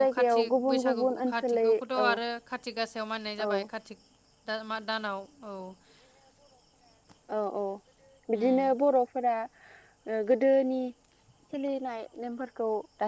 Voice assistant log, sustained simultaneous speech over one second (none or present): present